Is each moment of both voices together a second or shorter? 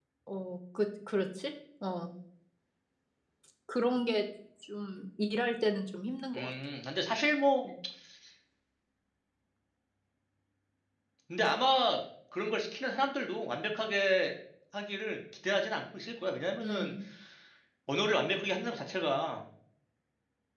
Yes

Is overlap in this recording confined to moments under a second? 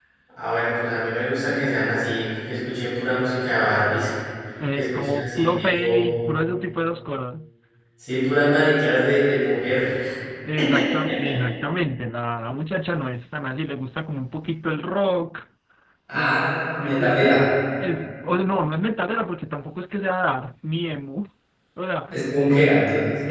No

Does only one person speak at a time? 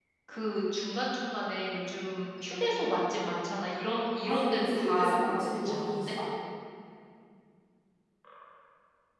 No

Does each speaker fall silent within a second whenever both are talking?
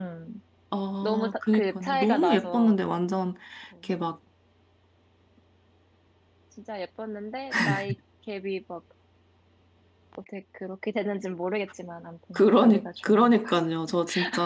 No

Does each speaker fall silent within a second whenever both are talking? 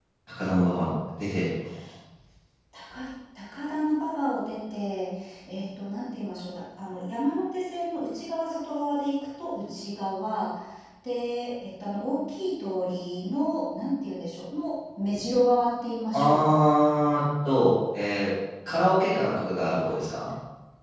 Yes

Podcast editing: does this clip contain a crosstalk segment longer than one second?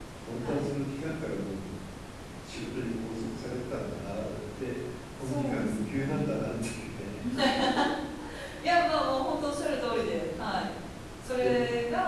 Yes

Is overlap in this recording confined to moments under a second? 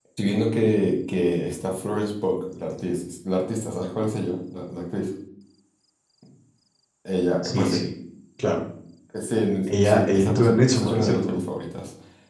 No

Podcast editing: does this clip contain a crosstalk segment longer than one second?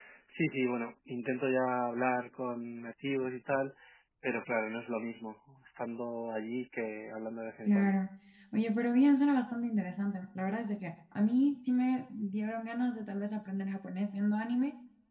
No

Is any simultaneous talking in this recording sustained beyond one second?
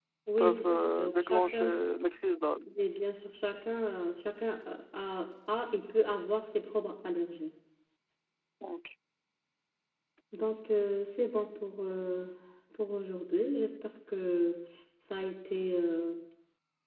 Yes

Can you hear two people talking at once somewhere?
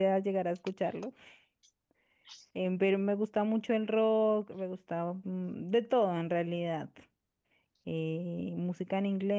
No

